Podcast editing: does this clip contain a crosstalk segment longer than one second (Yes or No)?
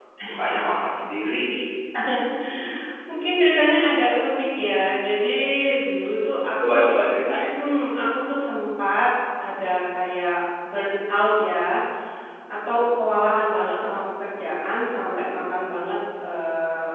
No